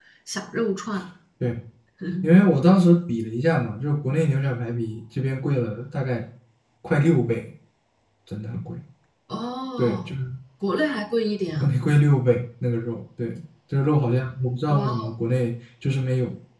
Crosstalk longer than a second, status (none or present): none